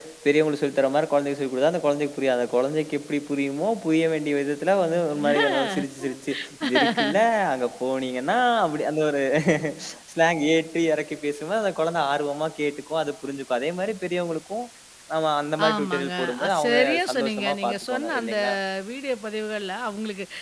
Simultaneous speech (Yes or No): Yes